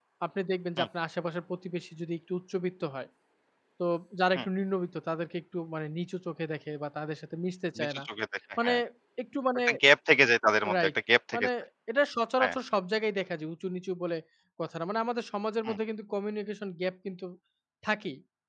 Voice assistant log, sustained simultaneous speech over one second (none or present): none